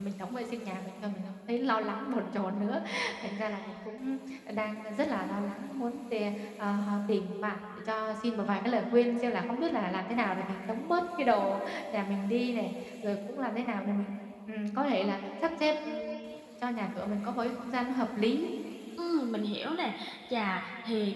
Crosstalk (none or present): none